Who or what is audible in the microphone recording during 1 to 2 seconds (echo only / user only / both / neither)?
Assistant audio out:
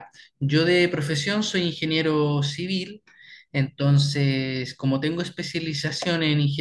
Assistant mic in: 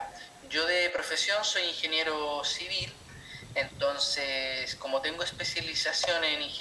echo only